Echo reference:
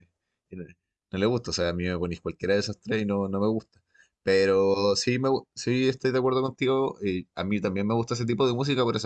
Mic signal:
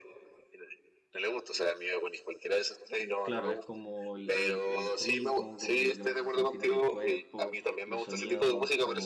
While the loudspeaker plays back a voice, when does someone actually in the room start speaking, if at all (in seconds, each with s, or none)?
3.2 s